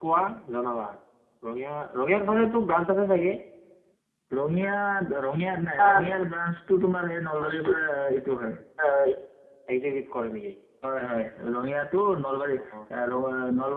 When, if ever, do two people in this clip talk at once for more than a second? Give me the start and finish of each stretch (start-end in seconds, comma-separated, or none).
none